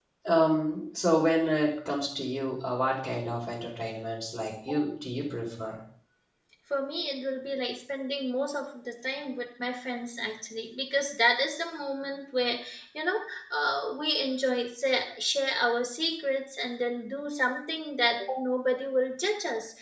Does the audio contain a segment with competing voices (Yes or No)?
No